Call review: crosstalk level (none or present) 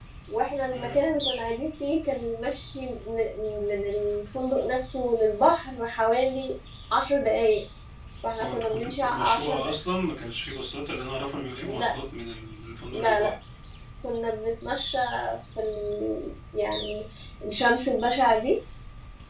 present